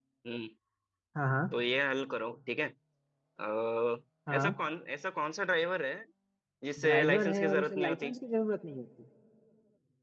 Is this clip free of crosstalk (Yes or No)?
No